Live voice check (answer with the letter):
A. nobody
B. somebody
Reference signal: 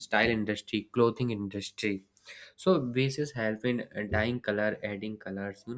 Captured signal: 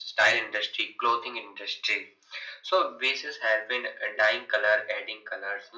A